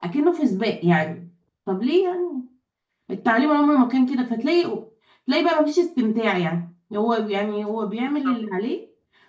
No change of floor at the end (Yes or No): Yes